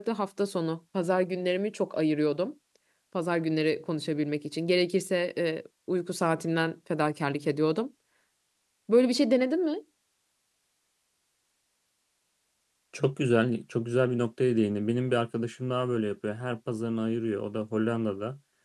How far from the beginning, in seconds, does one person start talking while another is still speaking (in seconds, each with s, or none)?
none